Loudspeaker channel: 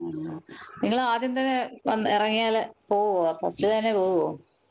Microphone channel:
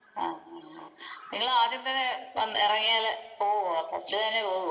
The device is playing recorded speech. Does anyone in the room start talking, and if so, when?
none

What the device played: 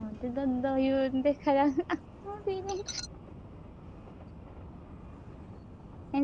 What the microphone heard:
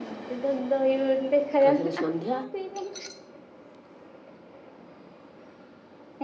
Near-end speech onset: 1.6 s

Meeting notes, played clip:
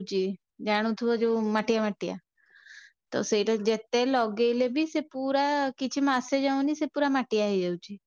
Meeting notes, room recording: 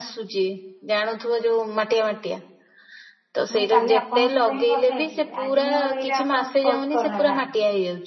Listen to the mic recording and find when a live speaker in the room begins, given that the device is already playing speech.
3.5 s

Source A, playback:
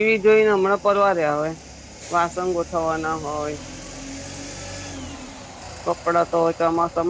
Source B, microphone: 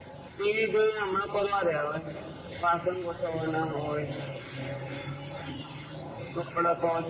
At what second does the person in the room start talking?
none

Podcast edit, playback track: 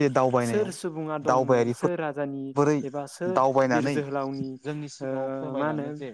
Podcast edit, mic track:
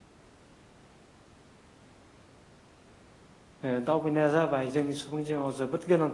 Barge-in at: 3.7 s

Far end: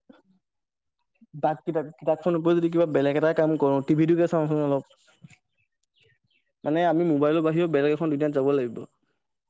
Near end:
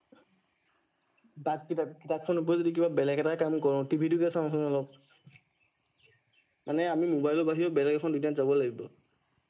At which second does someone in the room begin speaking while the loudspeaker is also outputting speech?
none

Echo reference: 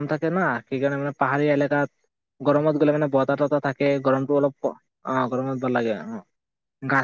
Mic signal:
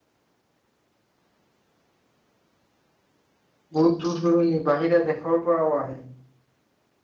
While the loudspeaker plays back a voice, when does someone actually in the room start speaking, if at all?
3.8 s

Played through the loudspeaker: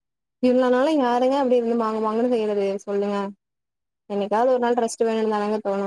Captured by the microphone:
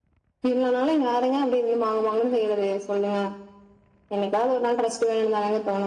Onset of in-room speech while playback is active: none

